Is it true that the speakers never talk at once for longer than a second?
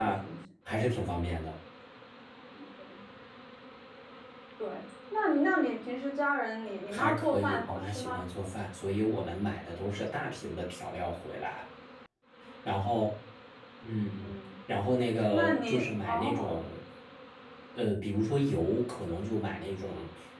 No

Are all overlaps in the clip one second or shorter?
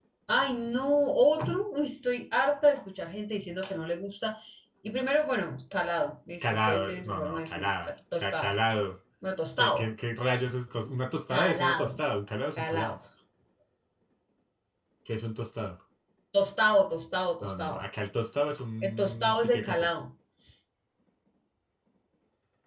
No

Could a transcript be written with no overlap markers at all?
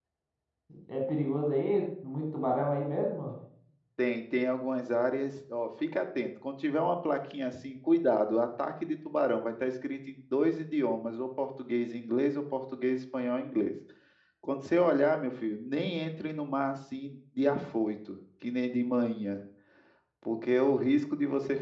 Yes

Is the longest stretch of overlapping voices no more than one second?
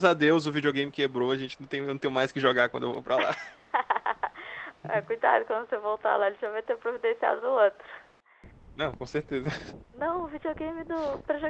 Yes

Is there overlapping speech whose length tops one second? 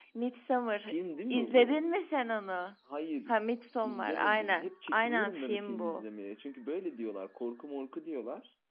Yes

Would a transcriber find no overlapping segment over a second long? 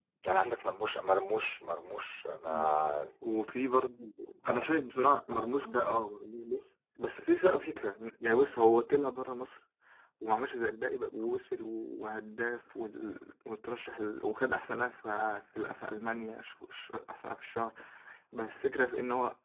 Yes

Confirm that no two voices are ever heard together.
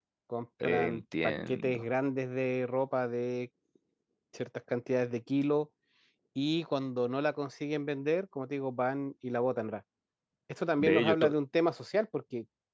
No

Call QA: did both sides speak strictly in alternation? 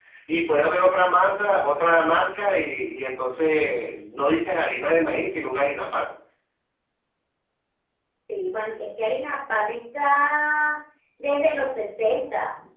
Yes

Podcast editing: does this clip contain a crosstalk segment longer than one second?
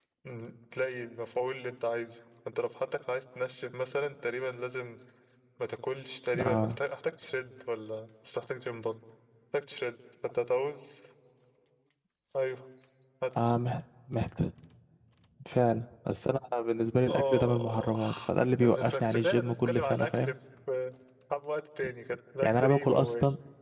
Yes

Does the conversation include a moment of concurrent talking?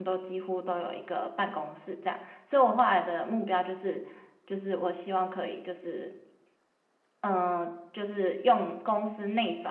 No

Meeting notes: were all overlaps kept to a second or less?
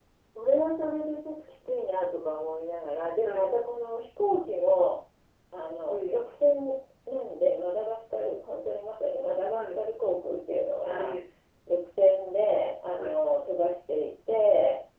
Yes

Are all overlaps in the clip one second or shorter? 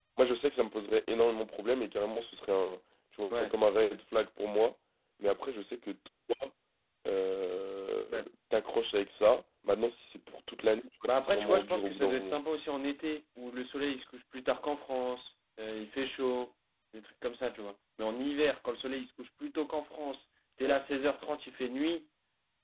No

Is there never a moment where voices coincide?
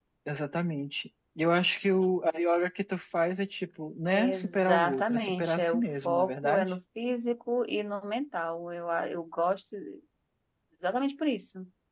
No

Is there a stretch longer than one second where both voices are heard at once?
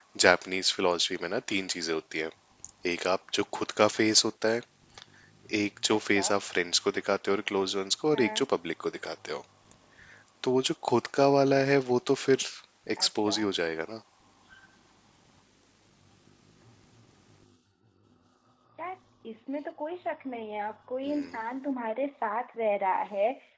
No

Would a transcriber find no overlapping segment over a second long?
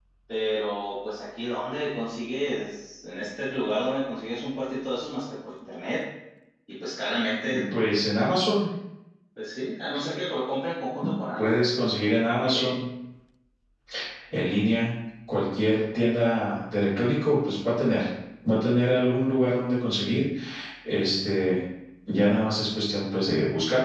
Yes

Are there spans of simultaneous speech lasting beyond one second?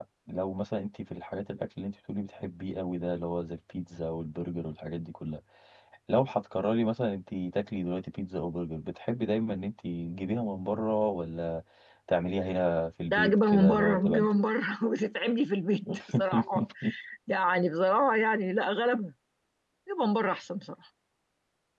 Yes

